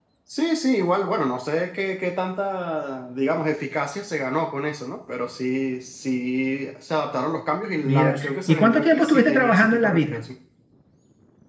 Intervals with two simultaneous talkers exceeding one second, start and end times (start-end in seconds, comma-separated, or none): 7.8-10.2